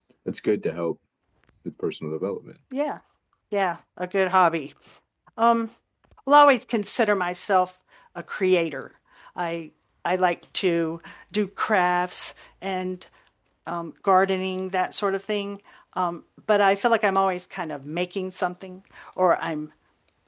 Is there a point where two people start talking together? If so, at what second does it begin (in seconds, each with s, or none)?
none